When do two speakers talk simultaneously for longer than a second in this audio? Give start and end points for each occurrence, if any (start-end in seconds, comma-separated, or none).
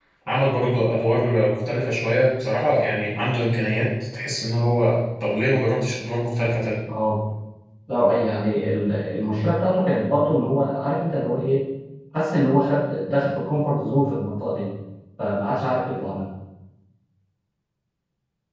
none